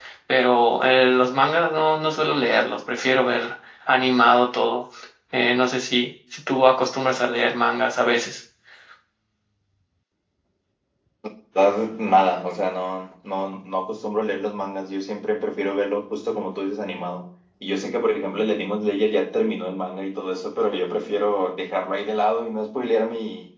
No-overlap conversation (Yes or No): Yes